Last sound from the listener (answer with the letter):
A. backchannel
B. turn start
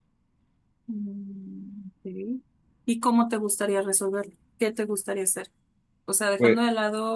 A